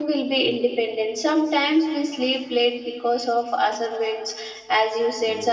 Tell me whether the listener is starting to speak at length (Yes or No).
No